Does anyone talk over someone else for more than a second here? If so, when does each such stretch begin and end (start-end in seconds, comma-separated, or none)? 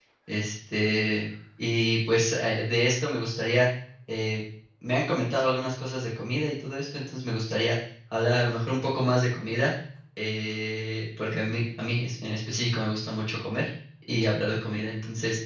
none